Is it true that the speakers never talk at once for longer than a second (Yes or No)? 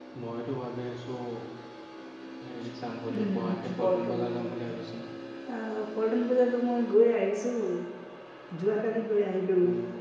No